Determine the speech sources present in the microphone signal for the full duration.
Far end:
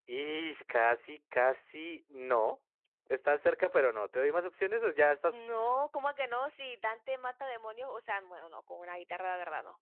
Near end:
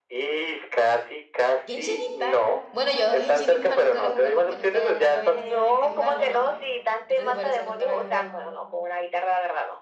both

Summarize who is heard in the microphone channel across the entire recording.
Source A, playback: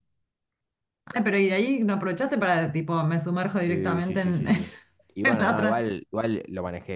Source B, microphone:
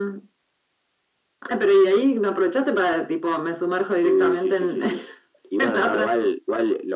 echo only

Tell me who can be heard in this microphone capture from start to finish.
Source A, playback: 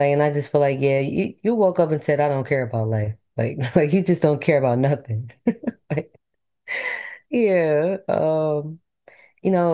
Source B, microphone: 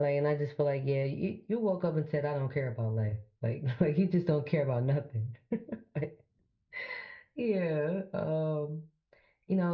echo only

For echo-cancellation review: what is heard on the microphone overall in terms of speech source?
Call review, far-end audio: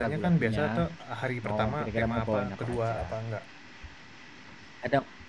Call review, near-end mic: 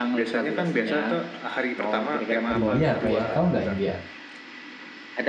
both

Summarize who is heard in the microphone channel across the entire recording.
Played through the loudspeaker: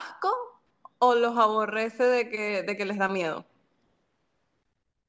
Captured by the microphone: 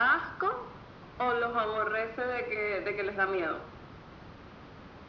echo only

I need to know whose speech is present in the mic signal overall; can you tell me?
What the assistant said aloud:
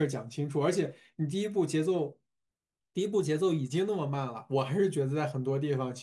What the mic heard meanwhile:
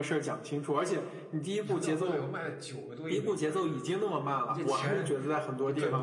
both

